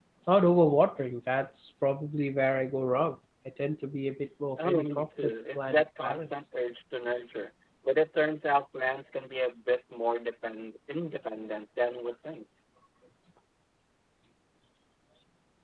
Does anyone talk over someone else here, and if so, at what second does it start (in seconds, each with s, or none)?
4.6 s